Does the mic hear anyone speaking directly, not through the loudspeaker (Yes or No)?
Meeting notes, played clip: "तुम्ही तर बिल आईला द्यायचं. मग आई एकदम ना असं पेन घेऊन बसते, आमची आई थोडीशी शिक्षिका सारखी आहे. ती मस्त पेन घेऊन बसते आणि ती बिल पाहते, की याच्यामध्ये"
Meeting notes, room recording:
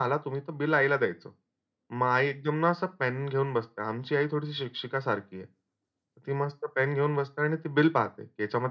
No